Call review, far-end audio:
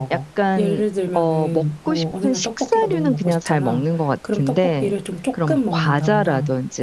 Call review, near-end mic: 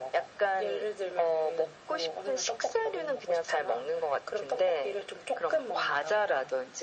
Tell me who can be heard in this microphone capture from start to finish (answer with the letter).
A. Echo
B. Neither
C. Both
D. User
A